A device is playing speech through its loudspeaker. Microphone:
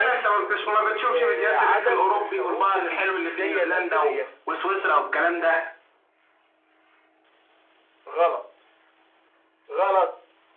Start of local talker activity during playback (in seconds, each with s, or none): none